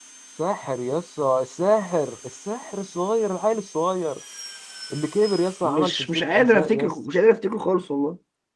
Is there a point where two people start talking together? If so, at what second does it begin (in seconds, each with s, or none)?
5.6 s